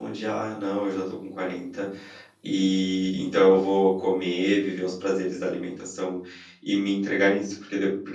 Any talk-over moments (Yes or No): No